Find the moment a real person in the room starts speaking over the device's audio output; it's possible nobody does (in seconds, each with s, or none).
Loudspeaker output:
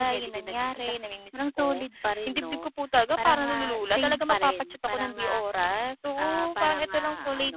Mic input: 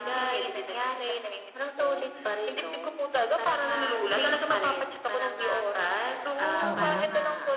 6.6 s